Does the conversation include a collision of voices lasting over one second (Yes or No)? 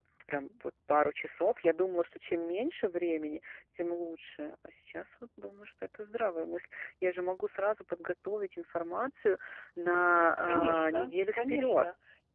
Yes